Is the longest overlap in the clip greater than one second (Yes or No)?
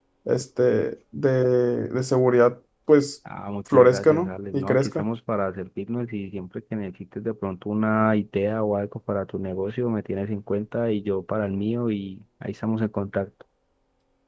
Yes